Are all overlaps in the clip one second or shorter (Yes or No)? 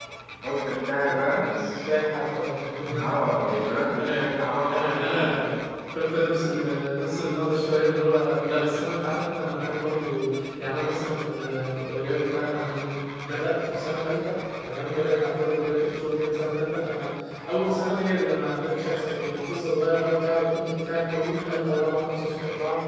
No